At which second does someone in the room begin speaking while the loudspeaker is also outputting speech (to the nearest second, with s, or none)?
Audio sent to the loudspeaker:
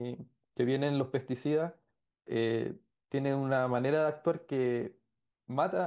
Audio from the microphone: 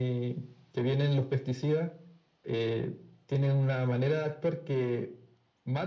none